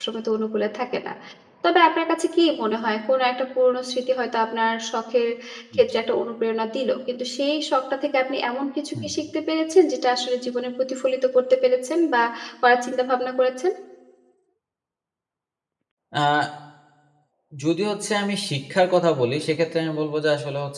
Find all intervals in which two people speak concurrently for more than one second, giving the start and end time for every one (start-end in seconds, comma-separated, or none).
none